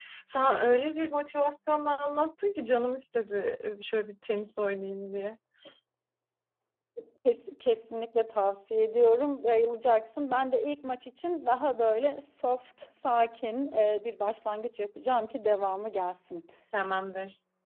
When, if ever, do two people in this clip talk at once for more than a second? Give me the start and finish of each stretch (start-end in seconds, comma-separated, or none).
none